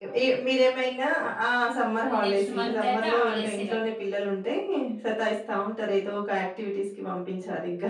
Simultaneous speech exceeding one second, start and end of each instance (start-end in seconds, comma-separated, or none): 2.0-3.7